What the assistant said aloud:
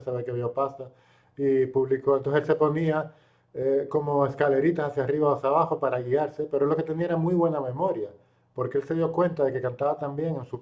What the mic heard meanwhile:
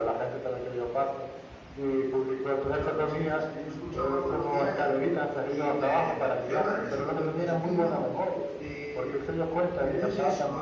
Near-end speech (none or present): present